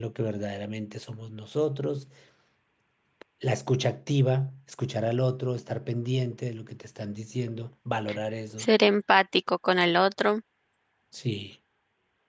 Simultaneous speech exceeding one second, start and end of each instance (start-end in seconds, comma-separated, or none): none